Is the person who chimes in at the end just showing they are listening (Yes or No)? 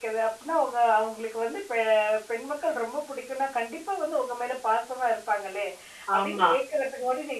Yes